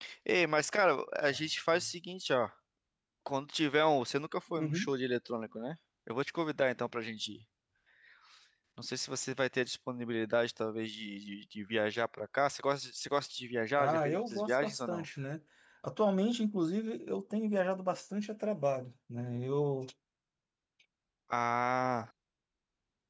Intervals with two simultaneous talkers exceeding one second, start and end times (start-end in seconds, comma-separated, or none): 13.8-15.0